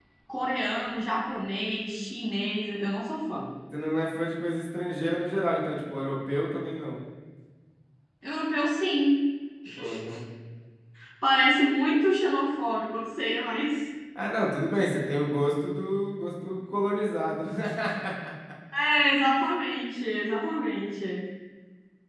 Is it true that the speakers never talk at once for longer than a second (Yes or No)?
Yes